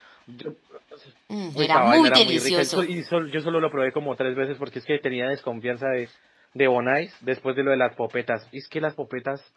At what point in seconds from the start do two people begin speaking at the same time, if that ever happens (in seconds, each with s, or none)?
1.6 s